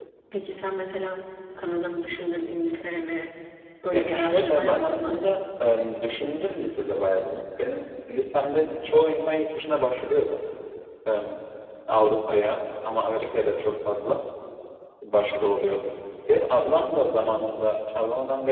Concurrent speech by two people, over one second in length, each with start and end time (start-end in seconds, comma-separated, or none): 3.9-5.2